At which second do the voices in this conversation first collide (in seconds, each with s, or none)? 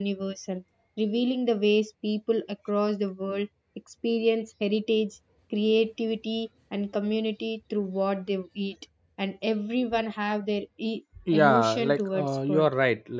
11.2 s